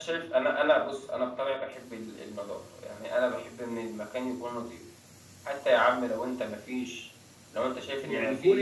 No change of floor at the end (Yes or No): No